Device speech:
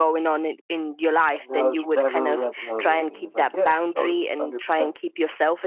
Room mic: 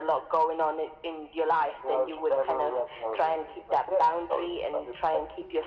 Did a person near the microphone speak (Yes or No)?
No